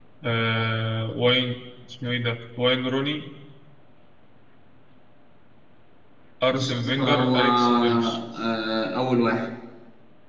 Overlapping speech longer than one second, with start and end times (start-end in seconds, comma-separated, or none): 6.5-8.2